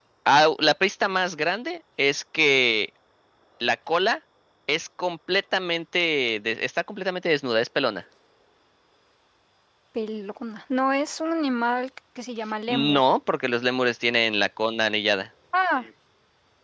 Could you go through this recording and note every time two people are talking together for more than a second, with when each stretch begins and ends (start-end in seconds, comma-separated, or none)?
none